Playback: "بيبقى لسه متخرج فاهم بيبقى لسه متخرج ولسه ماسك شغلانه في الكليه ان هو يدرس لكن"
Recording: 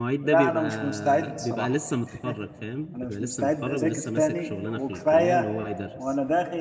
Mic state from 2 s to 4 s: both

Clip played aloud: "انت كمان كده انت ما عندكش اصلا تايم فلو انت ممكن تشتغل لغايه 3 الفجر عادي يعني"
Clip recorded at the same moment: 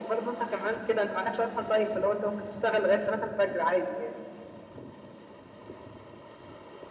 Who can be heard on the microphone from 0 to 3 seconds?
echo only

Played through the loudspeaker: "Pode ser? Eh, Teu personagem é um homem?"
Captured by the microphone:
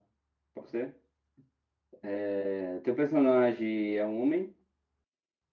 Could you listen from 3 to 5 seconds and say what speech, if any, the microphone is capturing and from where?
echo only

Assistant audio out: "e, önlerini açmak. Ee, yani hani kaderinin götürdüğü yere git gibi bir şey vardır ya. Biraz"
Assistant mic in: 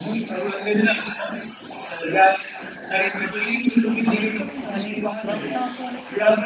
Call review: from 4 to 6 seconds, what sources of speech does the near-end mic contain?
both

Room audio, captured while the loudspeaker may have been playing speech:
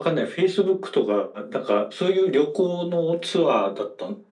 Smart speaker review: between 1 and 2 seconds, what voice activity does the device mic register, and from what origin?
echo only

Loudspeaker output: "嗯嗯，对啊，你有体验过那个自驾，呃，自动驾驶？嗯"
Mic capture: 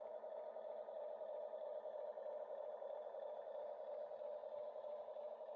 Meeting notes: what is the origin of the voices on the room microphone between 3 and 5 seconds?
neither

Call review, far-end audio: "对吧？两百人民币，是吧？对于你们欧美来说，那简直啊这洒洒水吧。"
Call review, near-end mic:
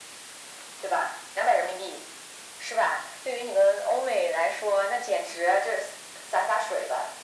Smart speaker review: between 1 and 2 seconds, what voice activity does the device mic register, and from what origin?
echo only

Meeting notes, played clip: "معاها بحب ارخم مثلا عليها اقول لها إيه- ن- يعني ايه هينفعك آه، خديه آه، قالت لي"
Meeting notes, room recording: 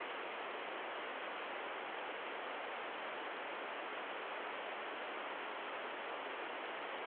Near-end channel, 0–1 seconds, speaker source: neither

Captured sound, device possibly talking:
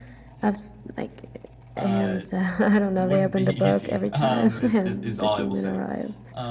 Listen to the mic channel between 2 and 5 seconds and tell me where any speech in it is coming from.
both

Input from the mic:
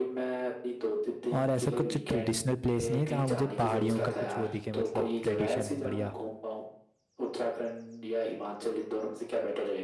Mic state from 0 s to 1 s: echo only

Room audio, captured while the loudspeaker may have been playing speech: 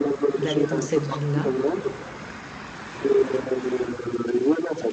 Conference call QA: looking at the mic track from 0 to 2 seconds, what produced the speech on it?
both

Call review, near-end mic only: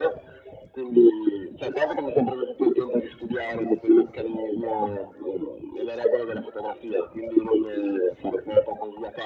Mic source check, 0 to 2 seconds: echo only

